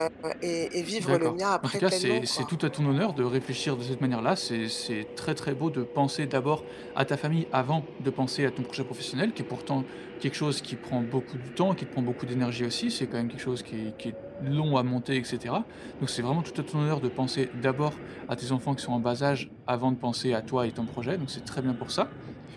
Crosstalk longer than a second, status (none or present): present